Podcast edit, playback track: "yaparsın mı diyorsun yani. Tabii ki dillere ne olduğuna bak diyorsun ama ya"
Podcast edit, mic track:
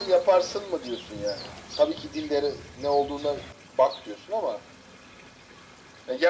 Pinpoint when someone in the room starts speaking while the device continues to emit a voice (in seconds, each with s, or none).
none